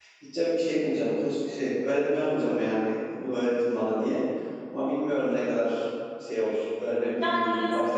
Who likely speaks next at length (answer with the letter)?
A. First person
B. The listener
B